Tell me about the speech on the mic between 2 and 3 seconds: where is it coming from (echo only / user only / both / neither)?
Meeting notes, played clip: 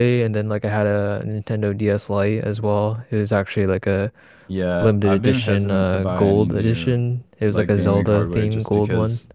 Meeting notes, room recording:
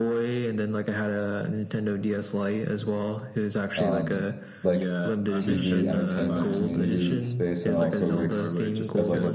echo only